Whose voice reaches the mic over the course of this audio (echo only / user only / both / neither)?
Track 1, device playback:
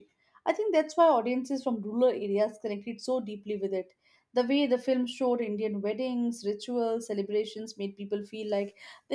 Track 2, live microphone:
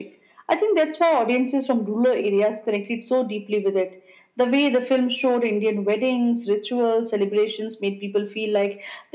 echo only